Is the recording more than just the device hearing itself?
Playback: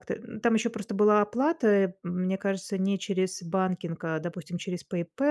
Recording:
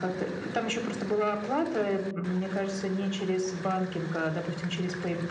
No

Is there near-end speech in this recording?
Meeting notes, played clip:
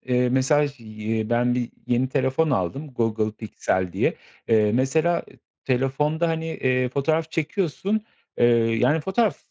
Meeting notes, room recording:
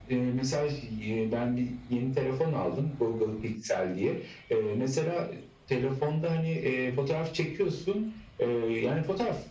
No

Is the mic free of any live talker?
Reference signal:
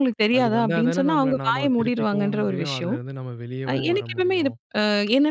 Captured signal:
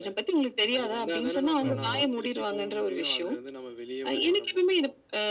No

